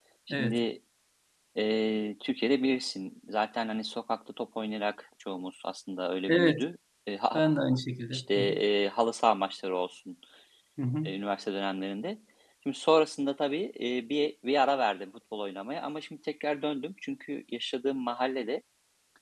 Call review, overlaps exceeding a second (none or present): none